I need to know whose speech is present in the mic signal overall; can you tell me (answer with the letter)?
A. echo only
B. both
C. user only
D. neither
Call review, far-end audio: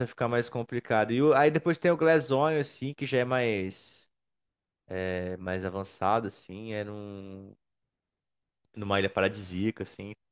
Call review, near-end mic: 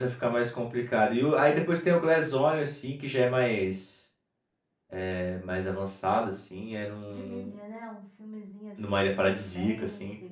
B